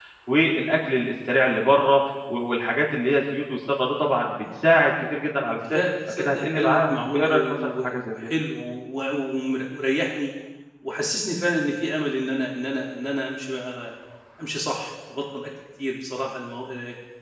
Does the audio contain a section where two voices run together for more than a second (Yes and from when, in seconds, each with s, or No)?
Yes, from 5.7 s